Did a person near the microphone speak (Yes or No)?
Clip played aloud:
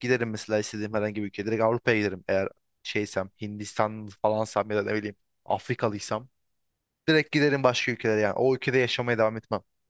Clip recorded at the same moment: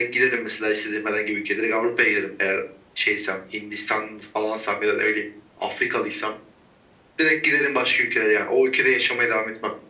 No